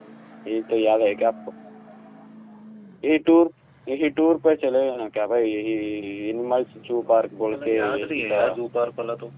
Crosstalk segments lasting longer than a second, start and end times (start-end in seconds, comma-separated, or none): 7.0-8.4